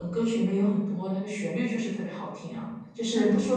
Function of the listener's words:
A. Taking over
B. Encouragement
B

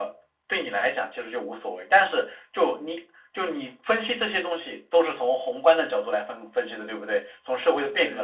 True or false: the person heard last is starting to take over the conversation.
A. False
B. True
B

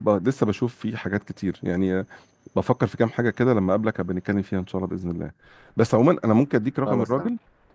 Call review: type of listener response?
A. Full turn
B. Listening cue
B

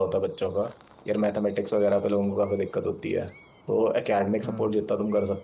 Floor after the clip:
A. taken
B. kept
B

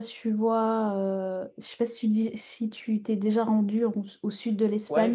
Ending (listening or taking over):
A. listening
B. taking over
B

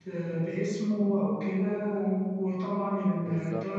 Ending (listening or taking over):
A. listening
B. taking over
A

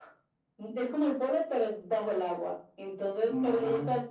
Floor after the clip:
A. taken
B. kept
B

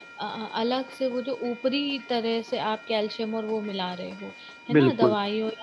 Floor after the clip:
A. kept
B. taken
A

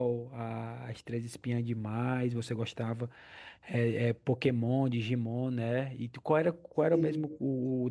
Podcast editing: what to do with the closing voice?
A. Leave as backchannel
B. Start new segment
A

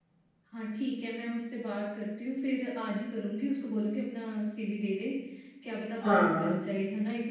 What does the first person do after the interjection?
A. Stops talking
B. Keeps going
B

